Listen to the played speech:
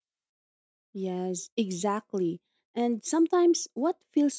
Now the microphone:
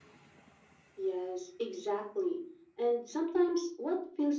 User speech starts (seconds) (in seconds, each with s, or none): none